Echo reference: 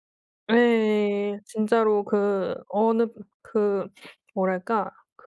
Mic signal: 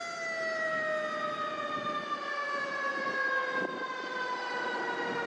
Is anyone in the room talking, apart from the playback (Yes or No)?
No